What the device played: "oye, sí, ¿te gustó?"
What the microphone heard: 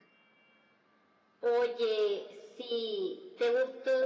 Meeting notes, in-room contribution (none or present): none